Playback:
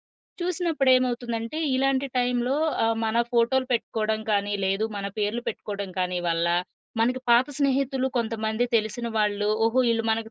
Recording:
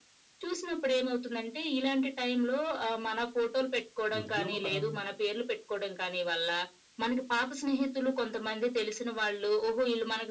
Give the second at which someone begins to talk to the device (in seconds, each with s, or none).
4.2 s